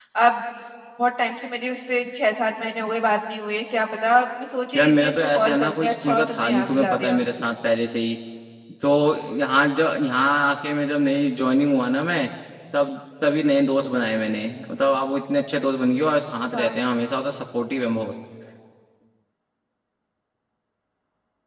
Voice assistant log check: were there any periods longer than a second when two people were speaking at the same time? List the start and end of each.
4.8-7.2

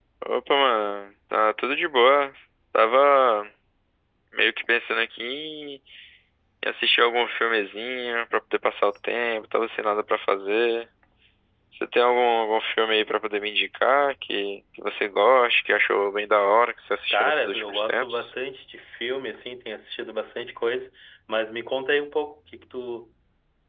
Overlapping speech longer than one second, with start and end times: 17.1-18.3

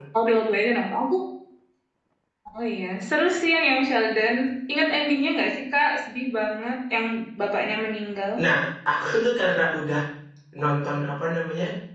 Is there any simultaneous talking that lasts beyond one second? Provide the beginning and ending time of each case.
none

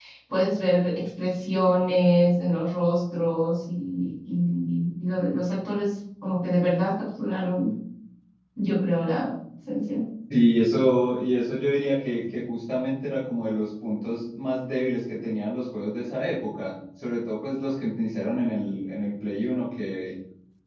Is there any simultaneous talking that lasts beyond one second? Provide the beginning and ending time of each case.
none

